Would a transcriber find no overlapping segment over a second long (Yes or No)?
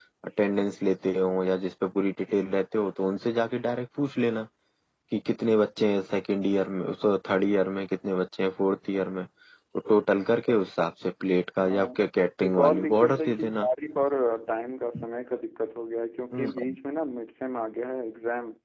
No